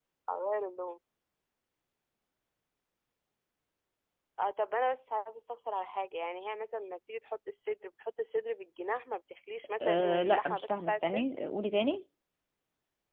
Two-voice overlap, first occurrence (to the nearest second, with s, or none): 10 s